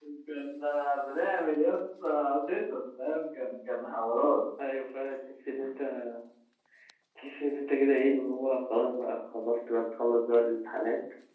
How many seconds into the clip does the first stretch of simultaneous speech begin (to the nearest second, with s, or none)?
none